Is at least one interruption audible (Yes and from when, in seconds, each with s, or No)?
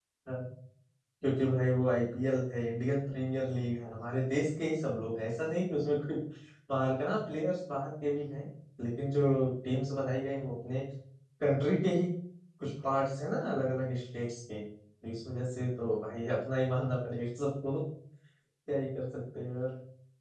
No